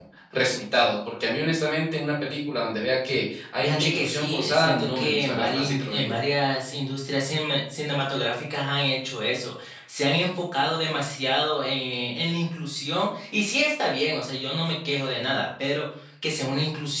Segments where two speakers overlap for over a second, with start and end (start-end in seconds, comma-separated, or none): 3.6-6.2